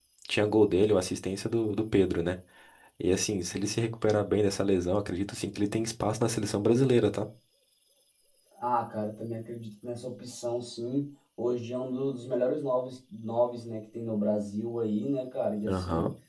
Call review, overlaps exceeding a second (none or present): none